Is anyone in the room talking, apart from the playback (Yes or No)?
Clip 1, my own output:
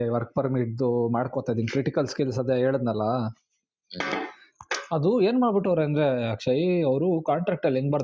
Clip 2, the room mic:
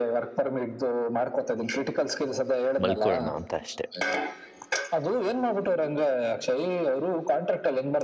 Yes